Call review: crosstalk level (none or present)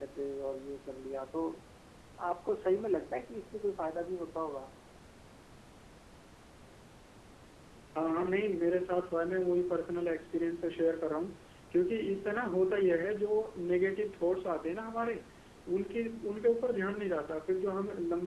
none